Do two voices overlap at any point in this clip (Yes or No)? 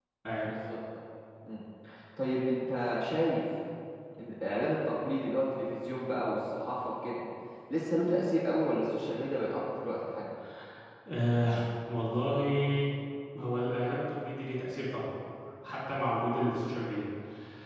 No